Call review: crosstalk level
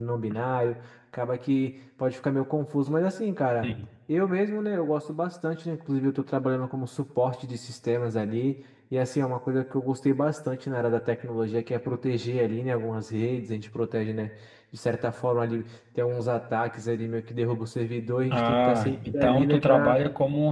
present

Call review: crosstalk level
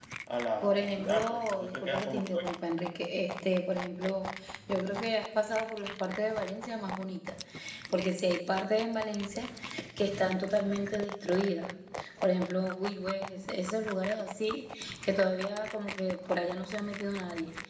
present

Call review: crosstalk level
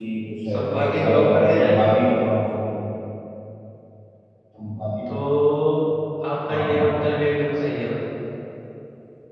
present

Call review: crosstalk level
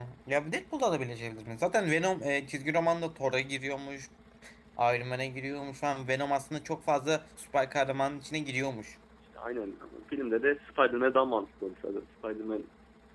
none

